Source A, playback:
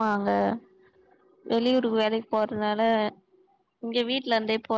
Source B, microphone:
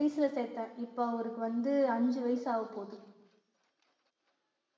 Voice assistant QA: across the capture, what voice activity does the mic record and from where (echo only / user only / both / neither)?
user only